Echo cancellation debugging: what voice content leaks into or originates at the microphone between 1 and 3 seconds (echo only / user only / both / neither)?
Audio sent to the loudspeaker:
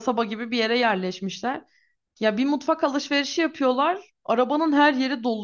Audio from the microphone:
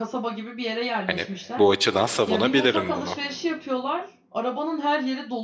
both